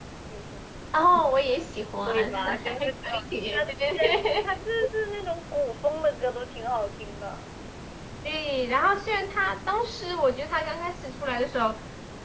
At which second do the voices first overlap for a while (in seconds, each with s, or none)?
2.1 s